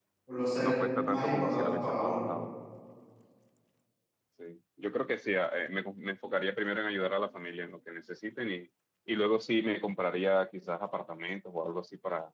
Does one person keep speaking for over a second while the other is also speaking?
Yes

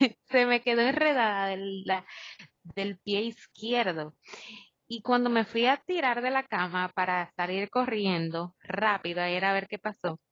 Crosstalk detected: No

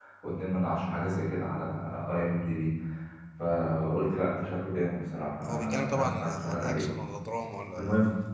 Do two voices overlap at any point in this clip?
Yes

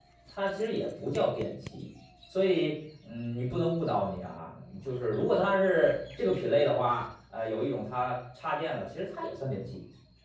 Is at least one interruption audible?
No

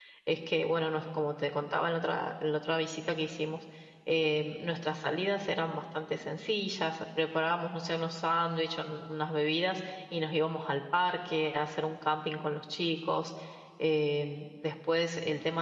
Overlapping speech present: No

